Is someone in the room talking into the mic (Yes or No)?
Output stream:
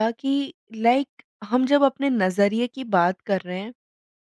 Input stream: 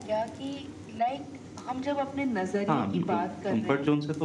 Yes